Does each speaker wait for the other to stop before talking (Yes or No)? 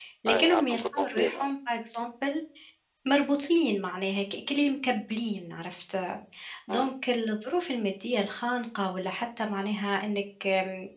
No